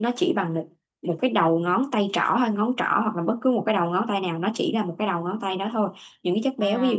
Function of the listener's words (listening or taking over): listening